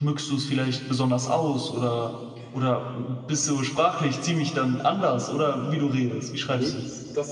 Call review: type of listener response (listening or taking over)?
taking over